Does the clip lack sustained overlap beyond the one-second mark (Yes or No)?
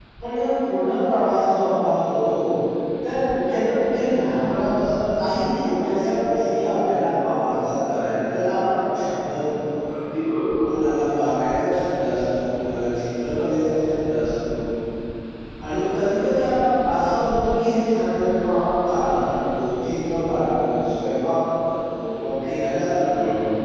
Yes